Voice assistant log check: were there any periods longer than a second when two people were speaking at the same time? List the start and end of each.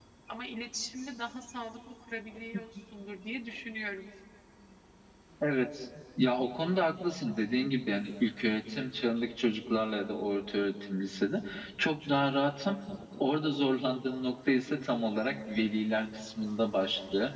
none

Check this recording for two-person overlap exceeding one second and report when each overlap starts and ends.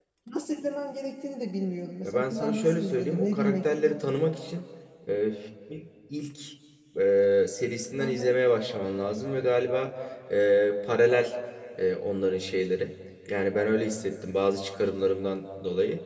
2.0-4.2

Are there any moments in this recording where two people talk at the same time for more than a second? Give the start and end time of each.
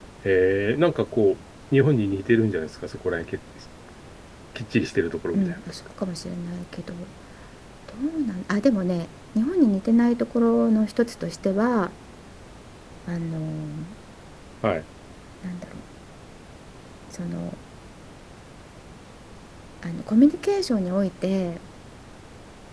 none

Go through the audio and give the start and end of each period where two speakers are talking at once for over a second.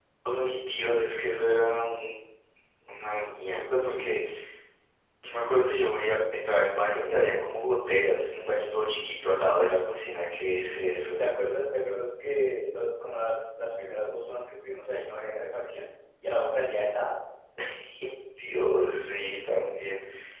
none

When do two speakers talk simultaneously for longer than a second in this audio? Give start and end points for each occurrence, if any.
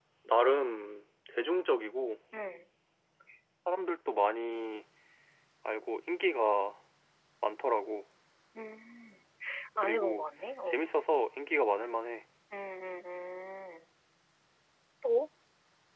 none

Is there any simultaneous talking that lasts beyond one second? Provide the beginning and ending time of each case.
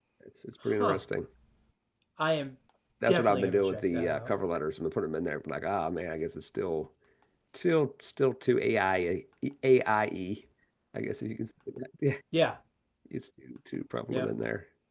3.1-4.3

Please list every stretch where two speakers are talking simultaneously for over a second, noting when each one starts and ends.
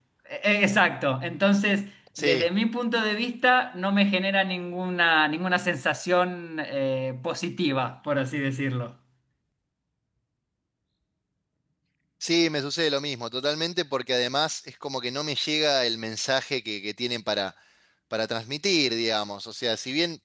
none

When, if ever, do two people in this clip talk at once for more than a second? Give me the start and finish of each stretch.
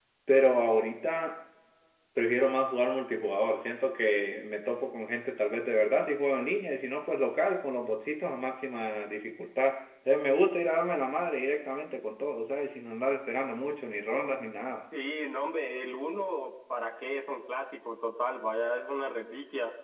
none

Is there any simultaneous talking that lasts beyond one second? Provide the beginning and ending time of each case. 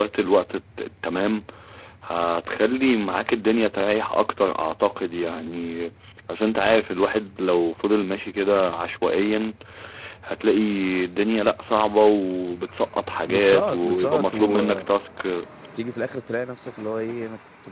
13.3-14.8

